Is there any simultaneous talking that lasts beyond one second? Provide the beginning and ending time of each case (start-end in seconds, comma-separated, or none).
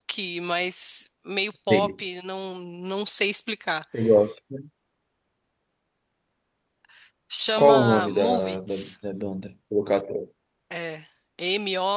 7.6-8.9